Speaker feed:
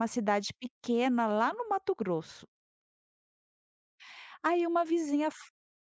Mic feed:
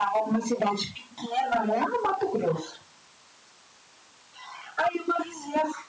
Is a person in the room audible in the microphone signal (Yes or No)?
No